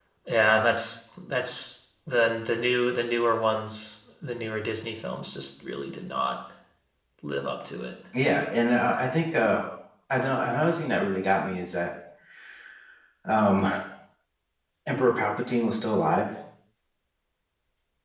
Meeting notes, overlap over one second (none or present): none